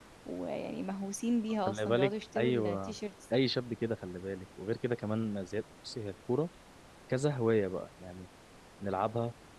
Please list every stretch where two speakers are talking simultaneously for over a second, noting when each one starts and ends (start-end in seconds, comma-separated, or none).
1.7-3.0